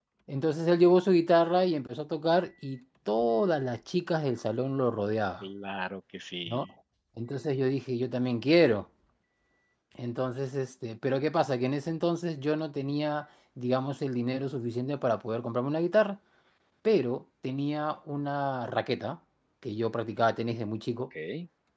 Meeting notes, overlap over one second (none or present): none